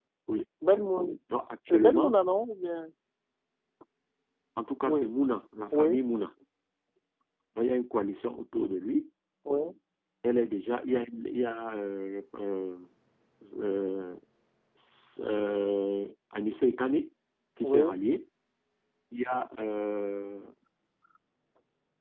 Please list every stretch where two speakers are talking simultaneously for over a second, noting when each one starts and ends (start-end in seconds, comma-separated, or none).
none